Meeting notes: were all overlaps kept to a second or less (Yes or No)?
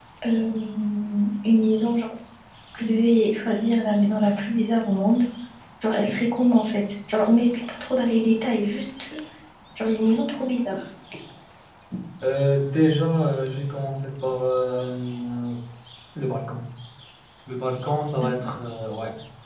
Yes